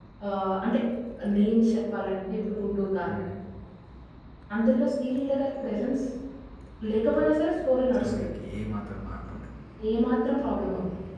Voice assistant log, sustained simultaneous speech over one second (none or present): none